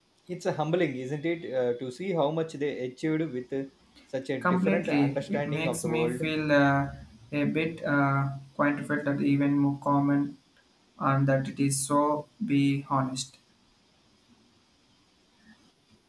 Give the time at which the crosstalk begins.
4.4 s

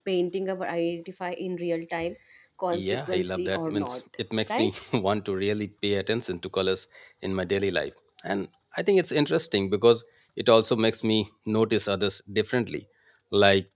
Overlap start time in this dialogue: 2.7 s

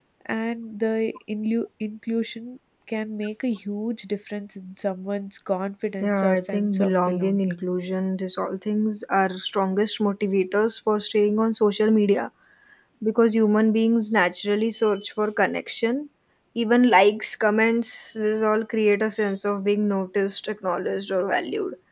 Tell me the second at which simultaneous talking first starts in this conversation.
6.0 s

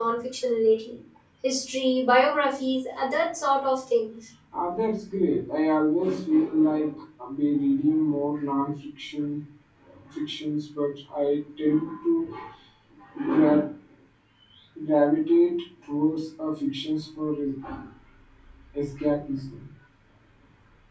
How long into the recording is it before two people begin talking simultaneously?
none

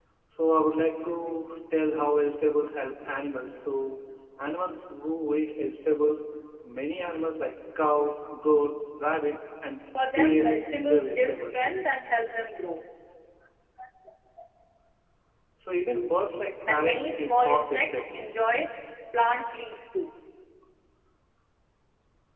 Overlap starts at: 10.1 s

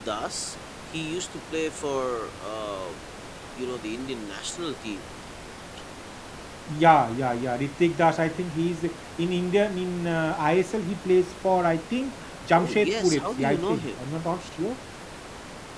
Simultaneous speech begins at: 12.6 s

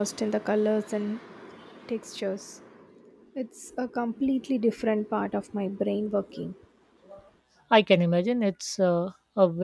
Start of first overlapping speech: none

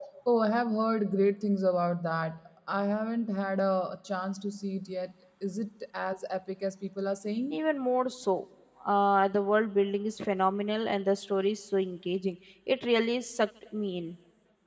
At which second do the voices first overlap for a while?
none

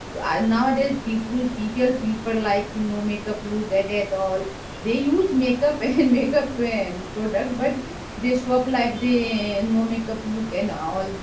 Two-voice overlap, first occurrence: none

